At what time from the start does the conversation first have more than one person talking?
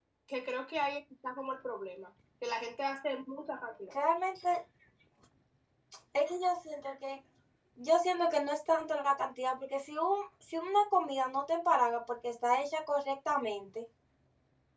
none

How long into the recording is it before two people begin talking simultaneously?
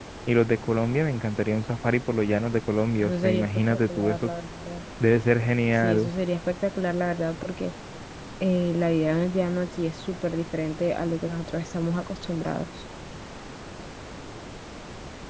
3 s

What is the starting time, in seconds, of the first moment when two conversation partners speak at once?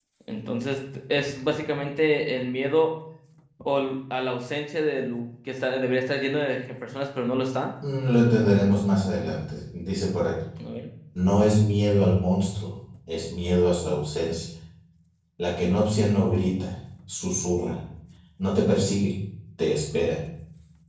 none

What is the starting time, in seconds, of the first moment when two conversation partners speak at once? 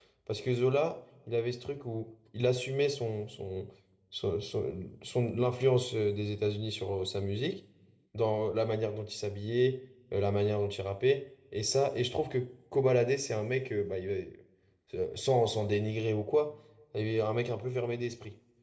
none

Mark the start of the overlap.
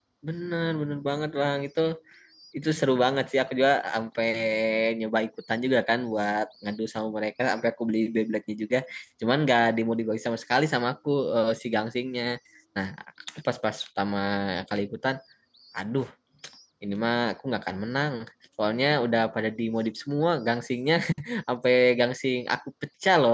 none

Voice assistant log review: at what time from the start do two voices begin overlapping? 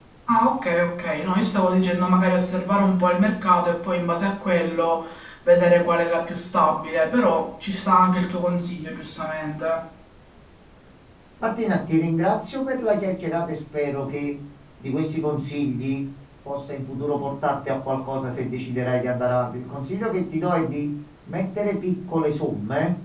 none

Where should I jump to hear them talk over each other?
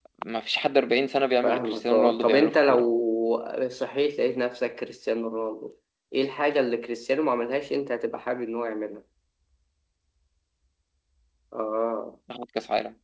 1 s

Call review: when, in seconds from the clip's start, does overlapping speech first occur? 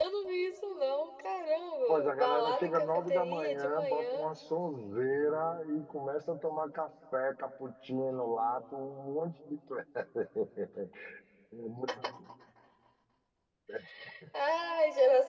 2 s

